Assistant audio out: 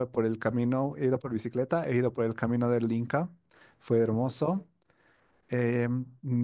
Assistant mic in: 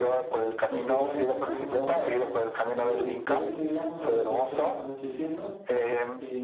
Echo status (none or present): present